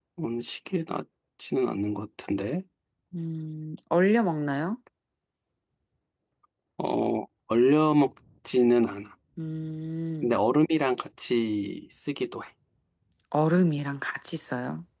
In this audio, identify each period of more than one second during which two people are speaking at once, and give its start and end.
none

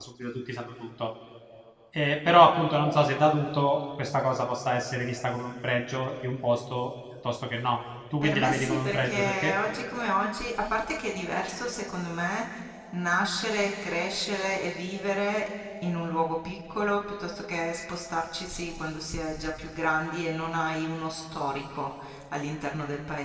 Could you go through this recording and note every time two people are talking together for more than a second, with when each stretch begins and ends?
8.2-9.6

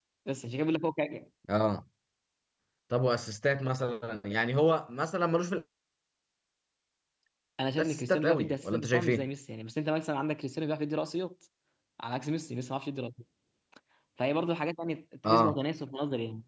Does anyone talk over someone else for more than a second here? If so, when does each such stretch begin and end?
7.8-9.2

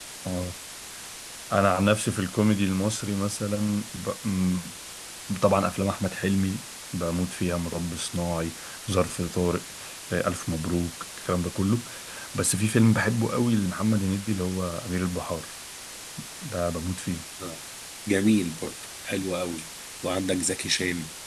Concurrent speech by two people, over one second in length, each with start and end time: none

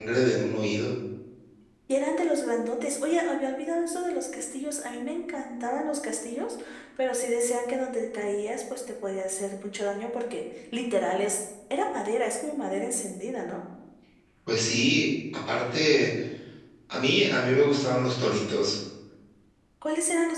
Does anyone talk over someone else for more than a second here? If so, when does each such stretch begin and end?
none

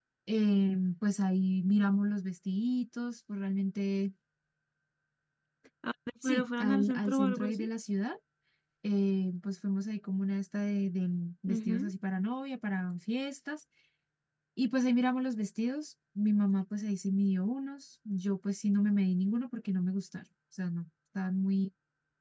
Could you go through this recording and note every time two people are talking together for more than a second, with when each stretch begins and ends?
6.2-7.7

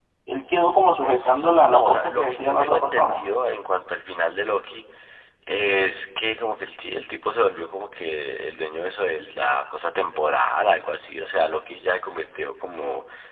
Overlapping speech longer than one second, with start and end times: 1.0-3.2

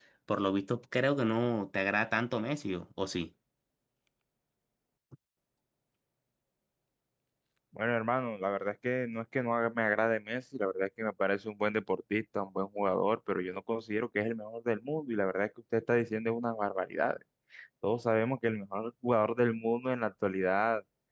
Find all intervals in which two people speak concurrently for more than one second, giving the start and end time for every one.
none

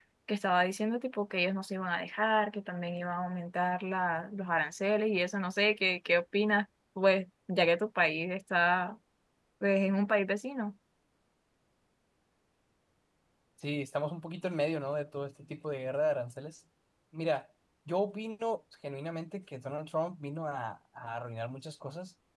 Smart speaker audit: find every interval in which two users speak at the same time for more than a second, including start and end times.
none

